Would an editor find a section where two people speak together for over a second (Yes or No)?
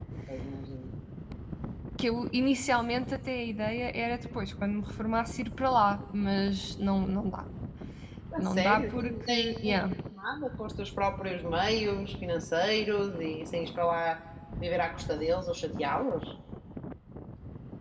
Yes